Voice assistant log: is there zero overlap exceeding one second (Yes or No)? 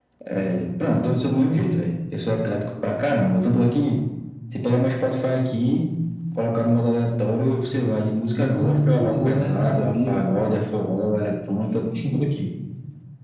No